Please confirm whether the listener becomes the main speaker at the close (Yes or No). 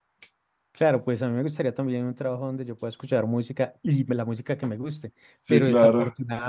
No